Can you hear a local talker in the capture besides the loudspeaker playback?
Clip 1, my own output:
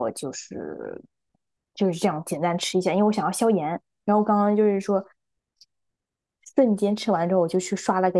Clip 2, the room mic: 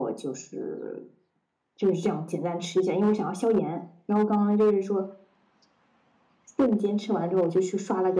No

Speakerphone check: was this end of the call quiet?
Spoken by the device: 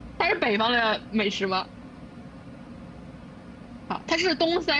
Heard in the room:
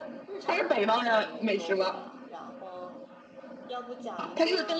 No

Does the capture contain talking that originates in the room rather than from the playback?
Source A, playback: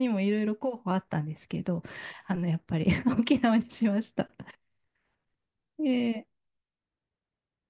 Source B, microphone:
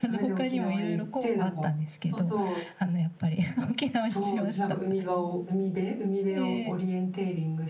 Yes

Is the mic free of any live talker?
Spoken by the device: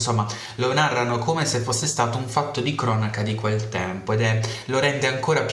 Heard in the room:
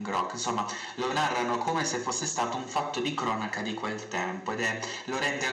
Yes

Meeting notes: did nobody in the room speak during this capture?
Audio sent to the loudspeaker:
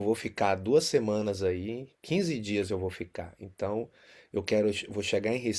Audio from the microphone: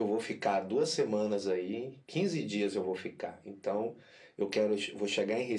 Yes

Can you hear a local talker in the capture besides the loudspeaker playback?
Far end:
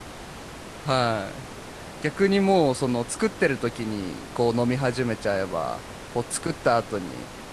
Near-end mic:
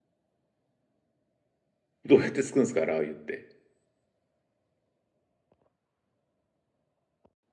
Yes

